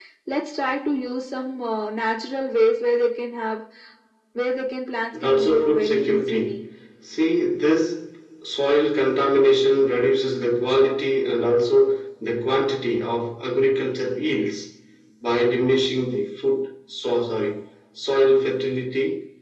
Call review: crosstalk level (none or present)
present